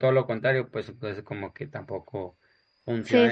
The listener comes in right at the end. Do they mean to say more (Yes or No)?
Yes